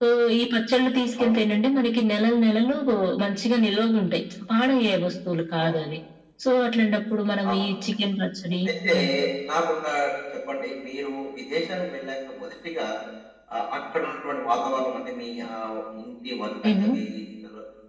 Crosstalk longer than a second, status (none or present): none